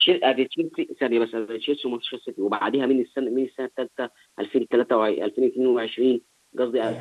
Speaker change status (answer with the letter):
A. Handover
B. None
B